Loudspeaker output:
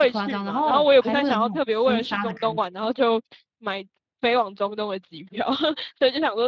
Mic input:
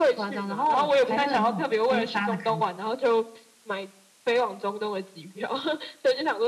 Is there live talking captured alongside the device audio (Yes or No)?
No